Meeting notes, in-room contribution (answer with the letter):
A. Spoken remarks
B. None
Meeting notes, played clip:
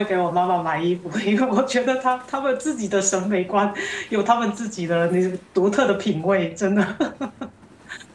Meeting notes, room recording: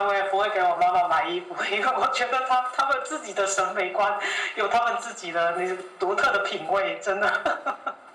B